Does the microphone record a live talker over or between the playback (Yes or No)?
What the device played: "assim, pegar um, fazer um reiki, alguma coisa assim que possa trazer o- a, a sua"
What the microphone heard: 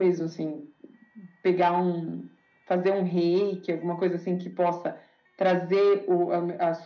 No